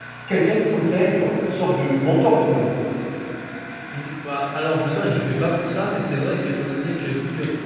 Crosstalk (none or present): none